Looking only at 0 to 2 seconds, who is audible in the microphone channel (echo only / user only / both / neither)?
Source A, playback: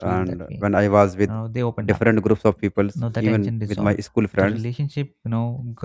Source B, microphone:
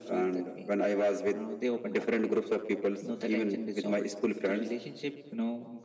echo only